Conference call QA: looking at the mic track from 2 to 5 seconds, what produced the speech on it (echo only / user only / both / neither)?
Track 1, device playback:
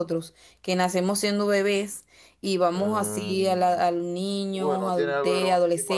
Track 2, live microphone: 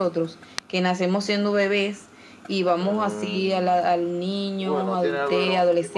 echo only